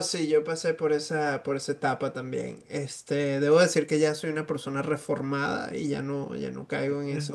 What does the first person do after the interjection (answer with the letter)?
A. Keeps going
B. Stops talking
B